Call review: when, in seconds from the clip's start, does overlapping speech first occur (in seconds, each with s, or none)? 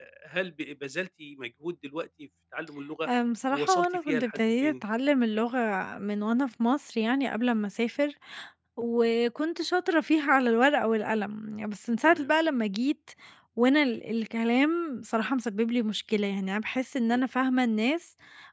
3.5 s